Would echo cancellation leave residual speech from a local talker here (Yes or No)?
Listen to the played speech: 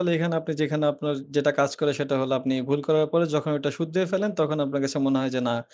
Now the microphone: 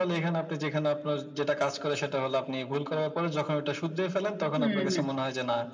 Yes